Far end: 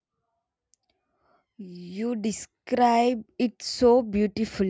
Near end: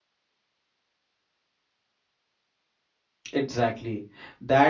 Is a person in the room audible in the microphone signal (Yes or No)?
Yes